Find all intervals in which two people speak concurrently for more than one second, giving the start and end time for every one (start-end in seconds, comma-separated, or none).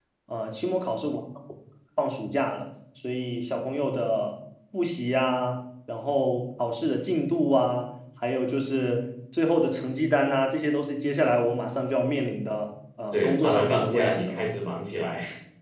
13.1-14.4